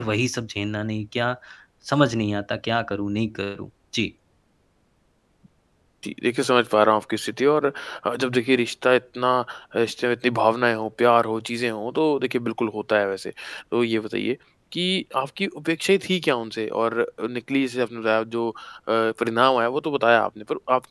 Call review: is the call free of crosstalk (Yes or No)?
Yes